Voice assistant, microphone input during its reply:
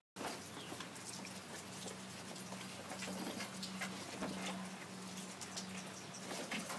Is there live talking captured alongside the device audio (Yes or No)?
No